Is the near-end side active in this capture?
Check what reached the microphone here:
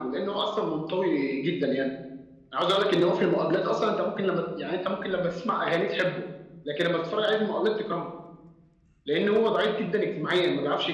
No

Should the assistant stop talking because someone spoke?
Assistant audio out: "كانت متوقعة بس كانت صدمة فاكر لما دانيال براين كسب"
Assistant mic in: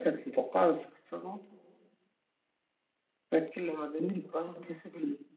No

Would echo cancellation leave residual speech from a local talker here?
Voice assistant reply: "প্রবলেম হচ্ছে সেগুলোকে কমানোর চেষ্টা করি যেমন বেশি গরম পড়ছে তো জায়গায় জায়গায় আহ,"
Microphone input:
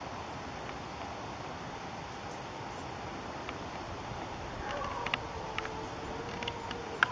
No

